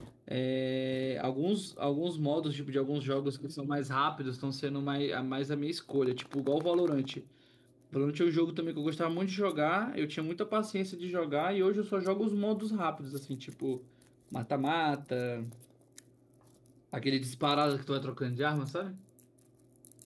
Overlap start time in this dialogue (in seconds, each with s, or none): none